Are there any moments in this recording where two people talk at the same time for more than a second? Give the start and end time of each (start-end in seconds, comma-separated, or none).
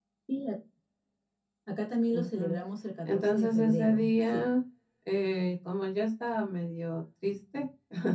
3.0-4.5